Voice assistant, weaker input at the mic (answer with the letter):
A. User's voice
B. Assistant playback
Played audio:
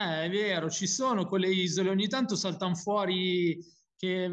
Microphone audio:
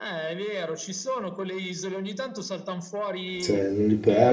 B